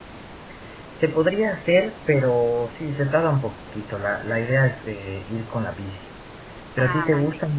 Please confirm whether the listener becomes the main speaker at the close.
No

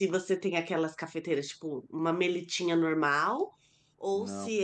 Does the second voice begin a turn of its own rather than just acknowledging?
No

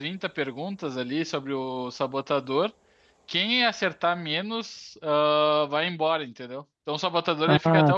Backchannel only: No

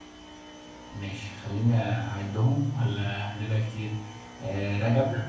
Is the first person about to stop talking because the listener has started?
No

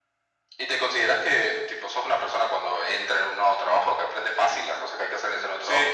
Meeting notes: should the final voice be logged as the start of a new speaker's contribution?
Yes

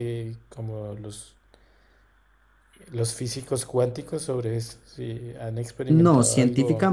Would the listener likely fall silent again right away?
No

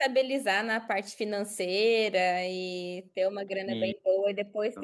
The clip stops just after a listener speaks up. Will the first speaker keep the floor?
Yes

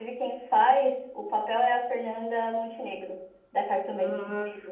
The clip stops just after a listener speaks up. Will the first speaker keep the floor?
No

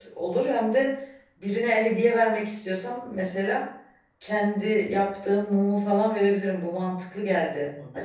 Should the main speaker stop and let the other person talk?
Yes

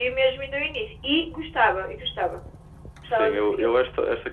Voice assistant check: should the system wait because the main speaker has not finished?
No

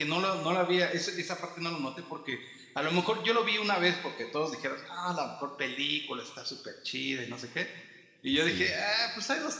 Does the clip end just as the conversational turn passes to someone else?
No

